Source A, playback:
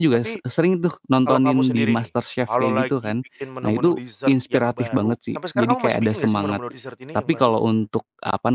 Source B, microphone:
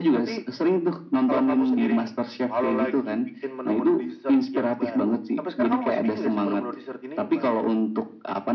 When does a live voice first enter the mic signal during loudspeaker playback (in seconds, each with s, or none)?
none